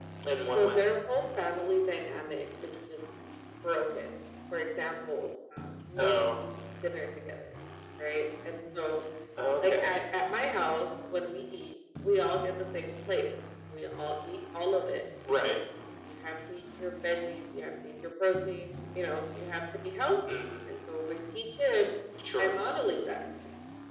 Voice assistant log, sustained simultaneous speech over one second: none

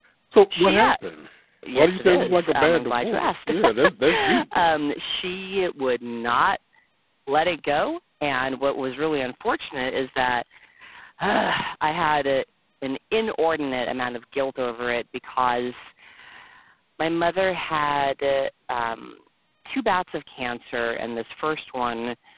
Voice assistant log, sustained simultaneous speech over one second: present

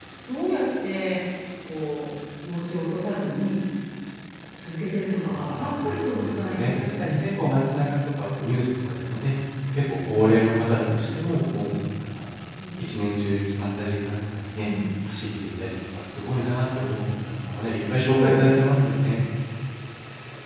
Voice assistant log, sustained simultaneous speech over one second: present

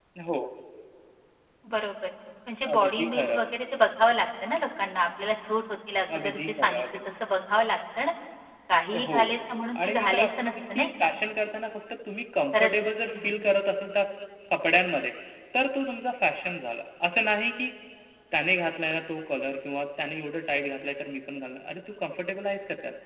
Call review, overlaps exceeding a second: present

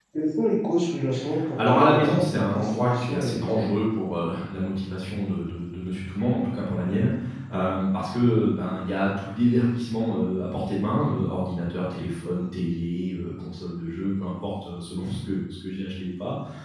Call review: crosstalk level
present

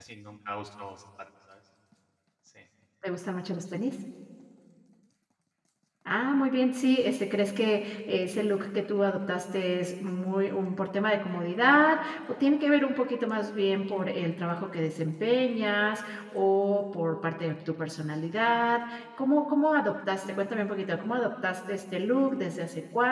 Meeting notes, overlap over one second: none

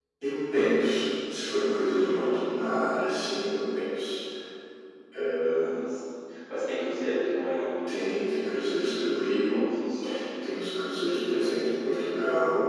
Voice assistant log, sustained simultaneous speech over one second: none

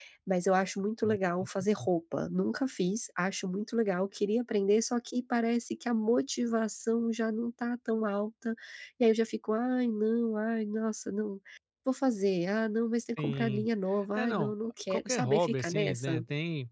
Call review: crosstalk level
present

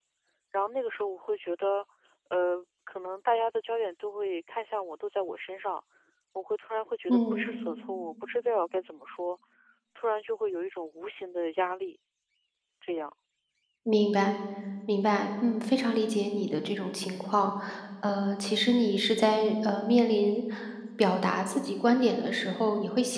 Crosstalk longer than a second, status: none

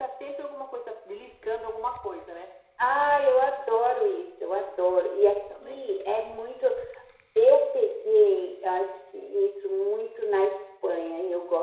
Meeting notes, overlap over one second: none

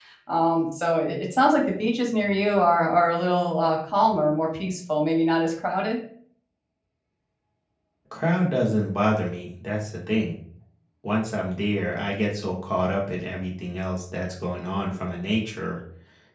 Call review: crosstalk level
none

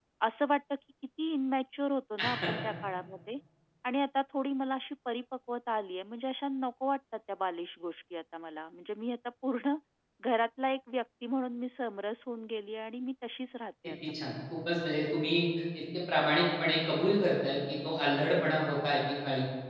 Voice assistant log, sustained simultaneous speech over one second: none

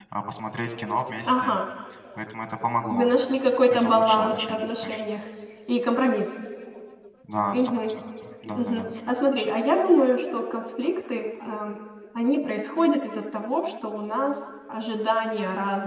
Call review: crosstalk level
present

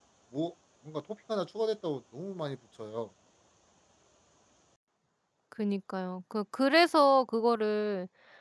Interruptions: none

